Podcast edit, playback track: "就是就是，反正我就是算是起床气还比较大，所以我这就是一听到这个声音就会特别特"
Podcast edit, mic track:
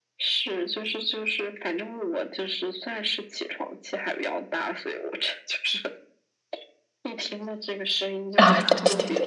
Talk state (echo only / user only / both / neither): both